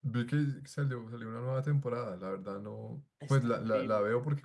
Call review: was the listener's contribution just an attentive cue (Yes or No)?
Yes